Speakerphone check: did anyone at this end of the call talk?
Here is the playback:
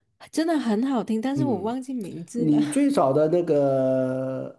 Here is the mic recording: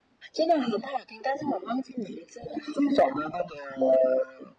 No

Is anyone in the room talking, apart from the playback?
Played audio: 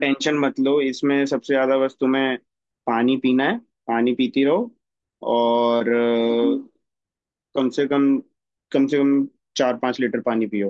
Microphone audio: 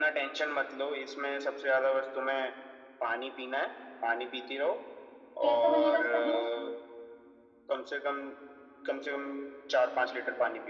Yes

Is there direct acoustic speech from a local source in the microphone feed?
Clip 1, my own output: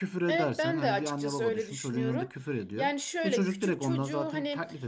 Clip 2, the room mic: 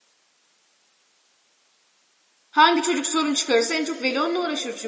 Yes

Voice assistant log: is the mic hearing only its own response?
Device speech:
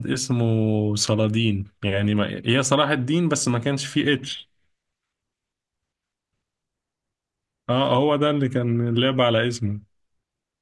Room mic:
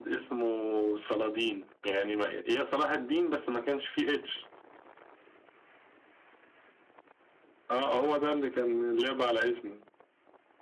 Yes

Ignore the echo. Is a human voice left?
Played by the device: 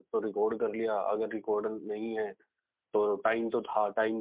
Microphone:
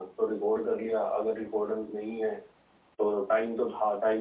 No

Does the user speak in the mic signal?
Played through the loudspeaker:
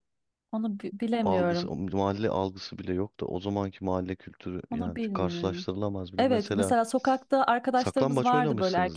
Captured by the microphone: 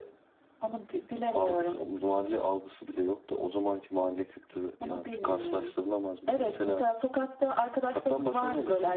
No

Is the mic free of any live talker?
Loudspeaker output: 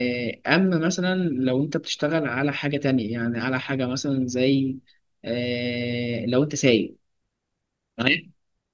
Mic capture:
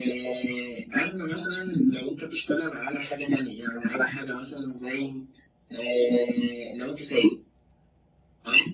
Yes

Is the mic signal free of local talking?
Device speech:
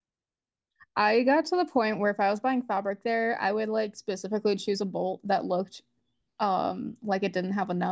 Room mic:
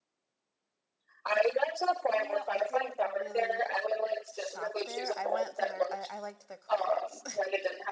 No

